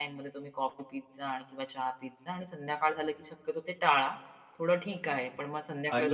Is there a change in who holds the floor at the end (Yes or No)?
Yes